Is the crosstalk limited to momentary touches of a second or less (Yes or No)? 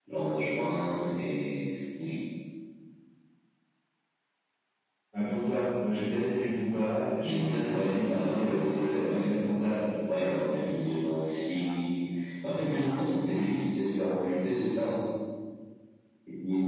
No